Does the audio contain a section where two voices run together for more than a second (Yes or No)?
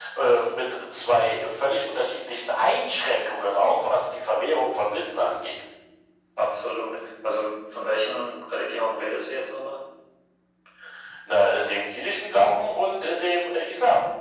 No